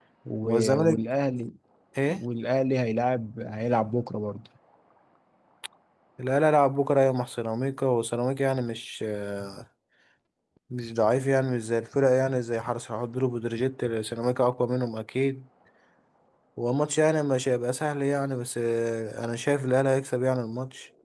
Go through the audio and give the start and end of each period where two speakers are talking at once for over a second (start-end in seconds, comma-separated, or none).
none